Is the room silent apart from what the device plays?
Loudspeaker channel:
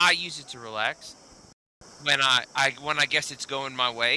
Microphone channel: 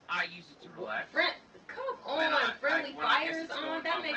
No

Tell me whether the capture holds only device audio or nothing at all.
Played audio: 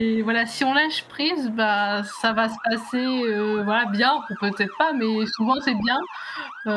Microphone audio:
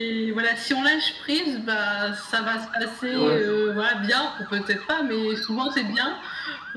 No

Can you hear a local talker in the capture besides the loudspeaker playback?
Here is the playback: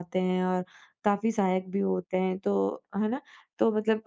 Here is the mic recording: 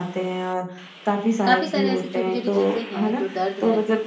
Yes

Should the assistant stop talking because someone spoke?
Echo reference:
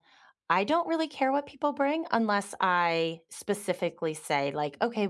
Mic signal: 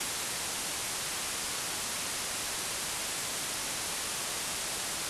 No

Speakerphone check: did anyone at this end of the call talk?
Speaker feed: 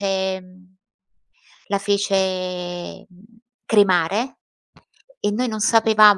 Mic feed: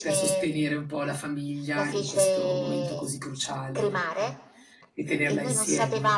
Yes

